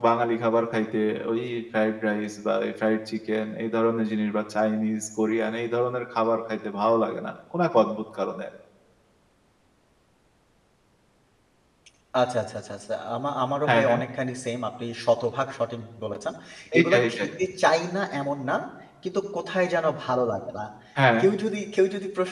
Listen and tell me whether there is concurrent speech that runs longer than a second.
No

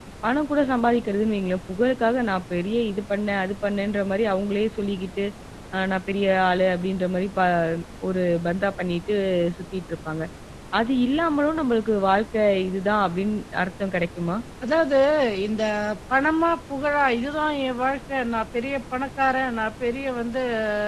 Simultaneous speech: No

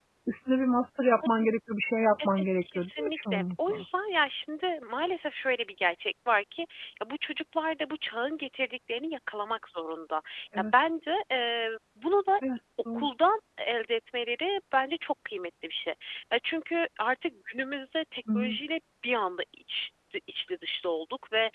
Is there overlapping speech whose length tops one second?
Yes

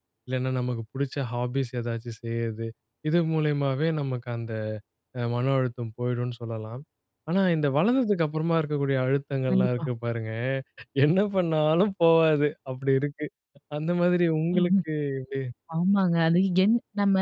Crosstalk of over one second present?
No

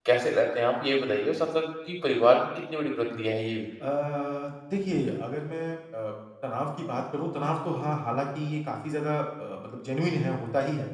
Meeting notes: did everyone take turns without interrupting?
Yes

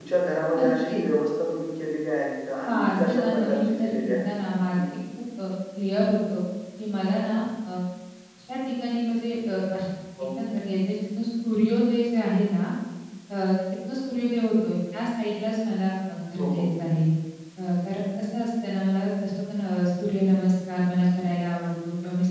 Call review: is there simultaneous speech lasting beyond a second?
Yes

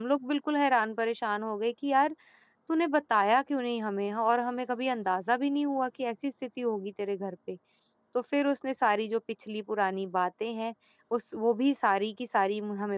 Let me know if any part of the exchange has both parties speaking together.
No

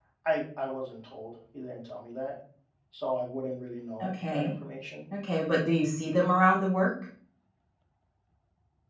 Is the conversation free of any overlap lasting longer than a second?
Yes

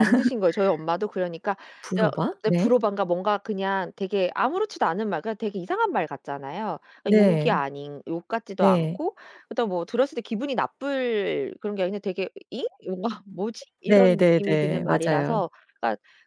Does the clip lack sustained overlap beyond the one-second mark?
No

